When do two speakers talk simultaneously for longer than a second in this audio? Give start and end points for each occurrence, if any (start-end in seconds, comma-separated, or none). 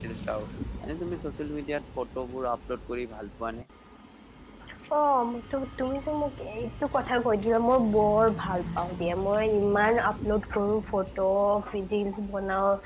none